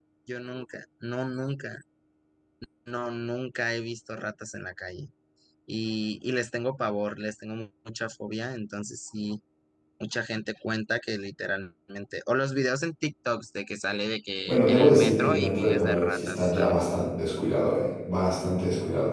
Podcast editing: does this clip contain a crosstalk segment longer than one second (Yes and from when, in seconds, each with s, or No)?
Yes, from 14.5 s